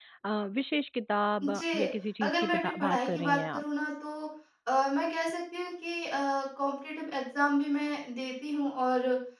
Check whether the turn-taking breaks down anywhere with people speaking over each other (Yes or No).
Yes